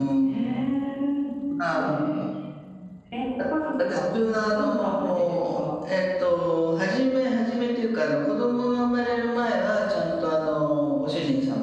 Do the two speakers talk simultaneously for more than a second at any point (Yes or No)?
Yes